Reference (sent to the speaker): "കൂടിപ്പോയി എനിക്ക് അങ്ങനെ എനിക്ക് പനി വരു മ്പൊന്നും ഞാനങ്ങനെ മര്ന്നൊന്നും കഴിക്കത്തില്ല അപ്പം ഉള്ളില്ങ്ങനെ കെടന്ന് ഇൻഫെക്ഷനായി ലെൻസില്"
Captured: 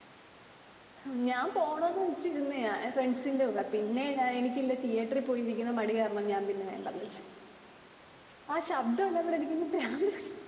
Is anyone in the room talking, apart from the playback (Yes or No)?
Yes